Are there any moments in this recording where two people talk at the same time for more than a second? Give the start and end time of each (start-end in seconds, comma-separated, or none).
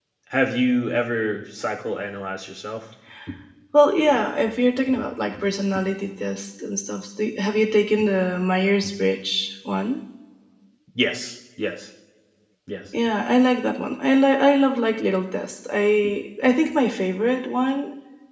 none